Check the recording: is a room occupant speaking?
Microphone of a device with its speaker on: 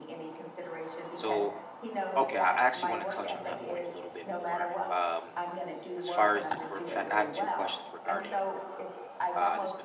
Yes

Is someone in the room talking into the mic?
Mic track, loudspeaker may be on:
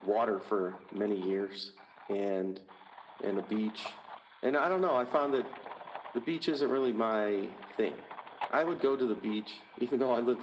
No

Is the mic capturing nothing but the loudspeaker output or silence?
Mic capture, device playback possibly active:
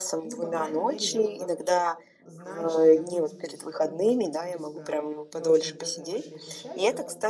No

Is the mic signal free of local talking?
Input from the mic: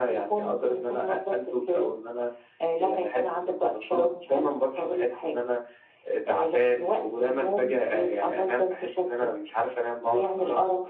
Yes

